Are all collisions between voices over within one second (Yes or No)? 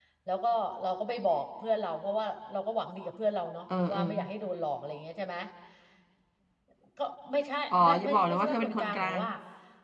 No